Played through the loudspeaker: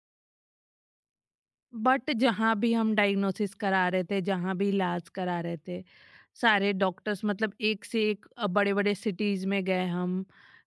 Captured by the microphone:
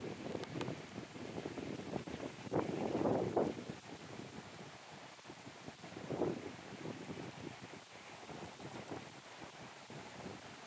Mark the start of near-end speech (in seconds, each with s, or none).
none